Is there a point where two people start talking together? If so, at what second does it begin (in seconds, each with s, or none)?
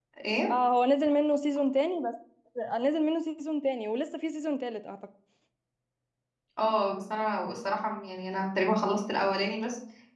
none